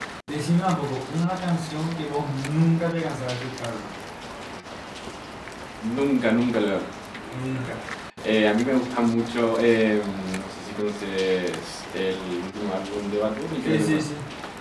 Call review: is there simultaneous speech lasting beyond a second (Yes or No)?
No